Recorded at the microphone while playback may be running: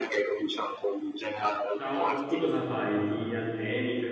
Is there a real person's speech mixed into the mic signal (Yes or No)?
Yes